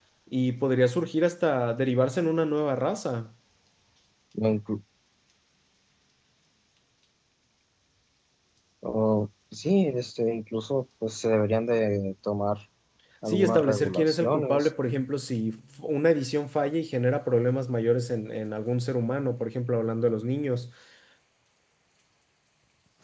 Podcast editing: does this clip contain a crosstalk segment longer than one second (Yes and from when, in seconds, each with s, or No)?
Yes, from 13.3 s